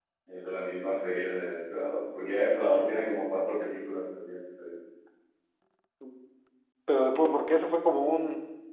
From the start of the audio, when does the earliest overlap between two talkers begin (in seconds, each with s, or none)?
none